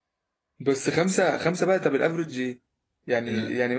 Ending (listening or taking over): listening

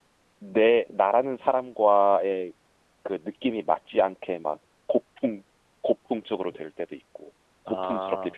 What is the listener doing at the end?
listening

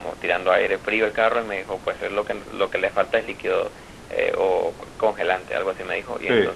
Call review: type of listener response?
listening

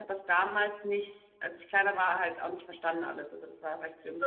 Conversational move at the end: taking over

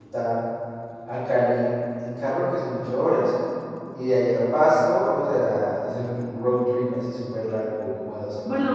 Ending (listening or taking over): taking over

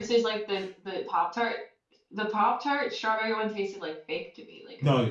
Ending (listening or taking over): taking over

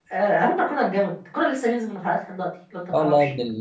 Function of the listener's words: taking over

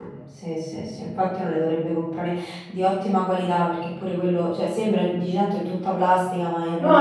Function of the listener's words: taking over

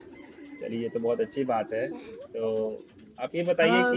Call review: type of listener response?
taking over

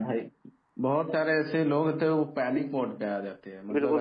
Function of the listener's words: taking over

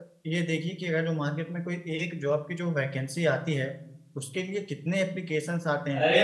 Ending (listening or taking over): taking over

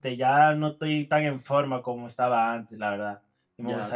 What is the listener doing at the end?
taking over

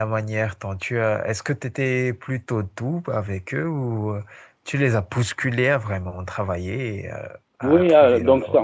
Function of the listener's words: taking over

